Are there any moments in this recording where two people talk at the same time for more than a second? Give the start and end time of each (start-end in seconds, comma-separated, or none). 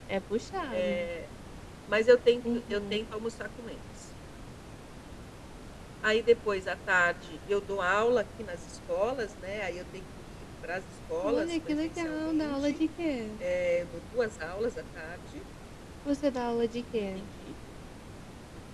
11.2-12.8